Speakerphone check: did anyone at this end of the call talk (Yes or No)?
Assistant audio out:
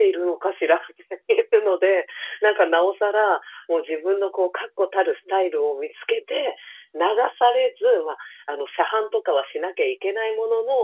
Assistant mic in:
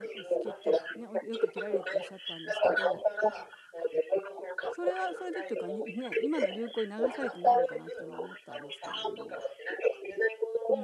Yes